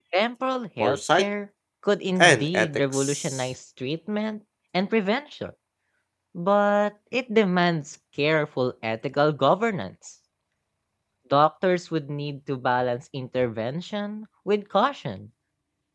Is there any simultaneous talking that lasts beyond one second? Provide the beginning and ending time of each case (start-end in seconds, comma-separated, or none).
2.2-3.5